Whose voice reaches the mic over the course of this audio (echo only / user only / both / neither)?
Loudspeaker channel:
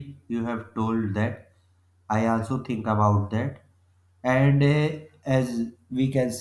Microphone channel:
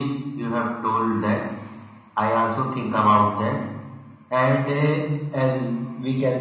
echo only